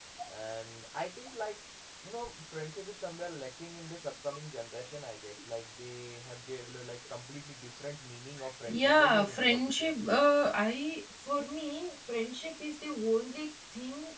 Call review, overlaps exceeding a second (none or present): present